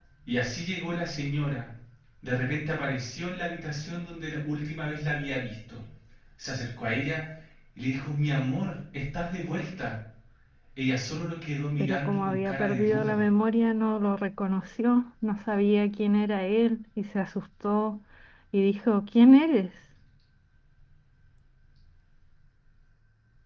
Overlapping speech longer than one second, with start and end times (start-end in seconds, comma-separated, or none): 11.8-13.2